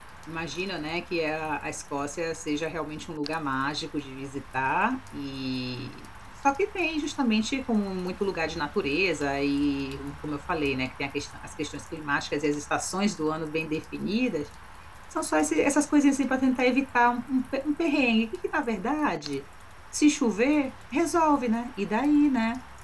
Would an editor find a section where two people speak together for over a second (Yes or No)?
No